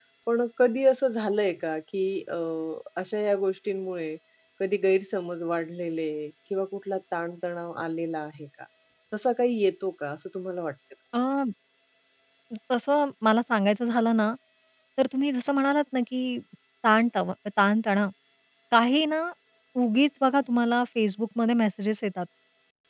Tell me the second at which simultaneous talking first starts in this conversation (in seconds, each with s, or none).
none